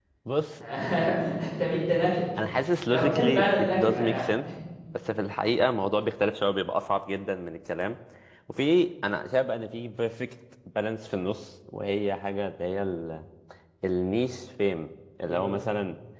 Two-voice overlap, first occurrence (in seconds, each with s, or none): 2.9 s